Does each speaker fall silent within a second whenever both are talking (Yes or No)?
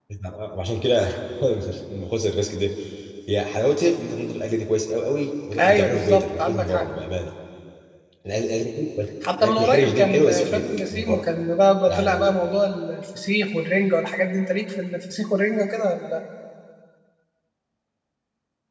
No